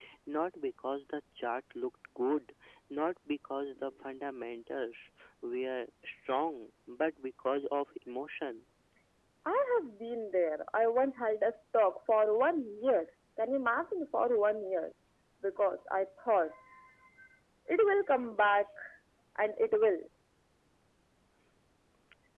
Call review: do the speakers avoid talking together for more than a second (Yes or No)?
Yes